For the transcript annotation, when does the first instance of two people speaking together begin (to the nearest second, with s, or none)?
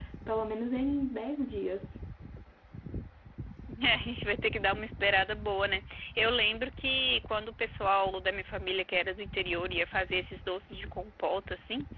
none